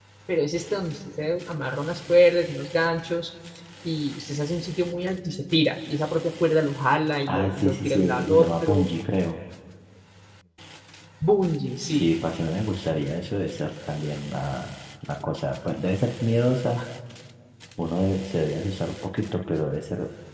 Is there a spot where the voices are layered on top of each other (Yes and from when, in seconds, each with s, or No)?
Yes, from 7.3 s